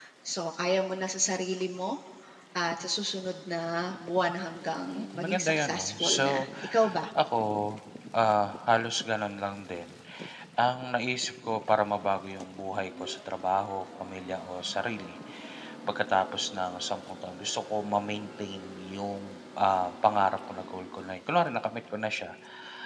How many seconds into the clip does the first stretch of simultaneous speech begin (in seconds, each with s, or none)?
4.9 s